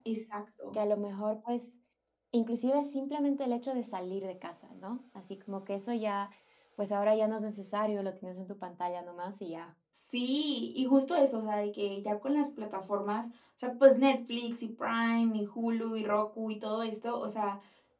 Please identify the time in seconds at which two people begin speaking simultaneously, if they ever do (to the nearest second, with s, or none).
none